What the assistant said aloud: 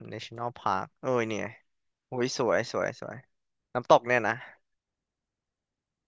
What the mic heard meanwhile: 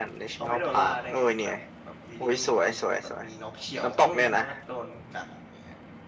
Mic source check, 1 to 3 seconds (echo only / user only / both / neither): both